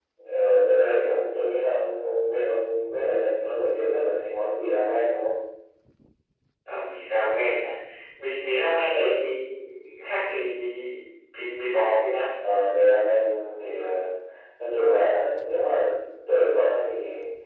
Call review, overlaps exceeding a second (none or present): none